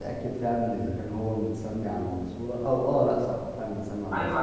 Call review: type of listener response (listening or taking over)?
taking over